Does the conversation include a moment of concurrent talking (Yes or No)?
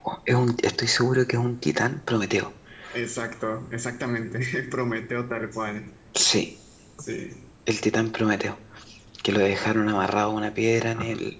No